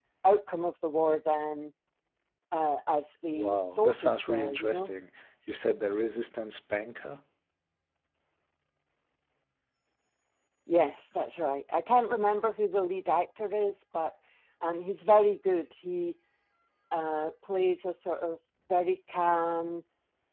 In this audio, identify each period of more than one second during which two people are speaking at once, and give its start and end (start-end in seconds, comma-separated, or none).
3.3-4.9